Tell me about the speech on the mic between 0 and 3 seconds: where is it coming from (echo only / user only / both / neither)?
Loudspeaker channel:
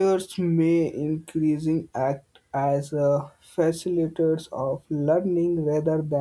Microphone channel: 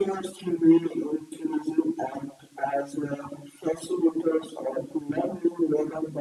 echo only